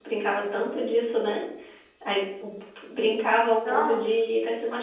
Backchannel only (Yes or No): Yes